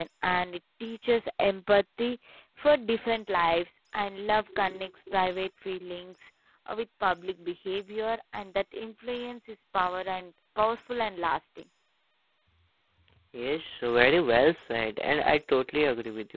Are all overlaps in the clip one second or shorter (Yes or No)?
Yes